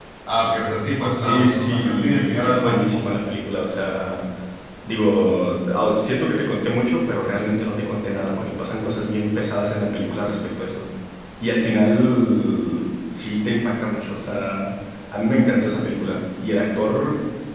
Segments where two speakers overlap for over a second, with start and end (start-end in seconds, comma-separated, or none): 1.2-3.0